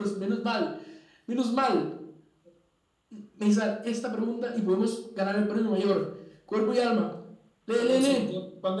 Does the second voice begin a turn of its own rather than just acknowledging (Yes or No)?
Yes